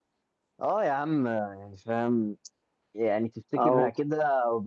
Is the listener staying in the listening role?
Yes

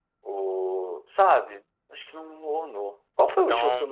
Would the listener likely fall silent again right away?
Yes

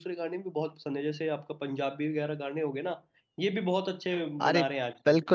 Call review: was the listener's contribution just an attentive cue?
No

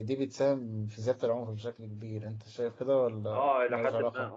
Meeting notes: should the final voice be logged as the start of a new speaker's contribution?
Yes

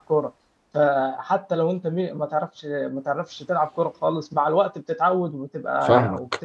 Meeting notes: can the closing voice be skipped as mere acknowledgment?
No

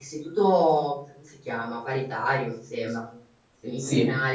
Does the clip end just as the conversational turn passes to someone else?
No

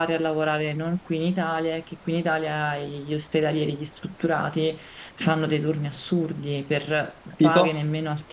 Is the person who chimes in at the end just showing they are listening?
Yes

